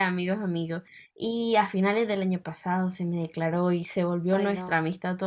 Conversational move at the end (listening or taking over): listening